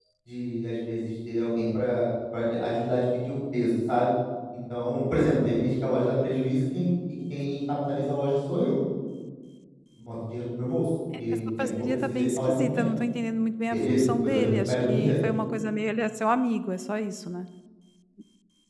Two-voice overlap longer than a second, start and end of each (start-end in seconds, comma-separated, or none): 11.3-12.9, 13.7-15.1